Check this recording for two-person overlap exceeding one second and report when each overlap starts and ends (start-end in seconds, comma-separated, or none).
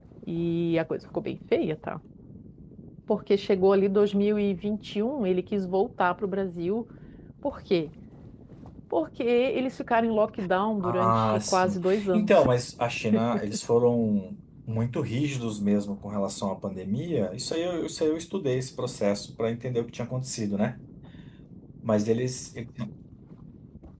10.9-12.4